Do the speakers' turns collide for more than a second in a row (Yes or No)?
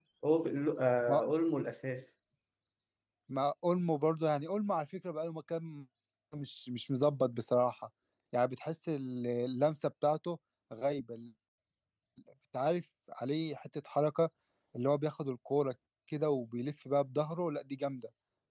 No